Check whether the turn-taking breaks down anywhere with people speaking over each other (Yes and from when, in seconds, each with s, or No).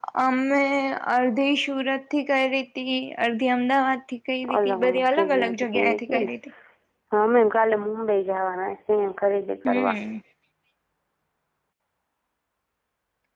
Yes, from 4.5 s